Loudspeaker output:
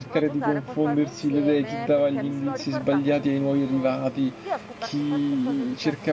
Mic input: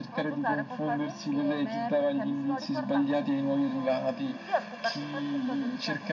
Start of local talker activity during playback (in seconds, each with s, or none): none